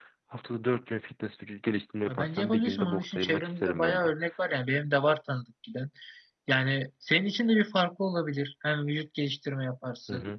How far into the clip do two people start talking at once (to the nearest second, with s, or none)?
2 s